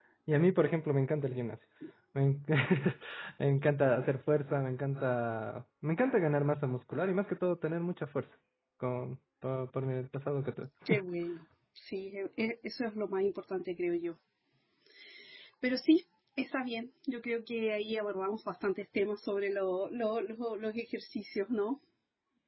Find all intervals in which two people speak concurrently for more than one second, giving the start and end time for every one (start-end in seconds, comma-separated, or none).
none